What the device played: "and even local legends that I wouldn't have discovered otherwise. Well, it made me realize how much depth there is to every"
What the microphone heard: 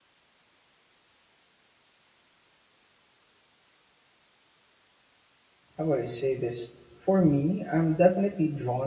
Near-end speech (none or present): present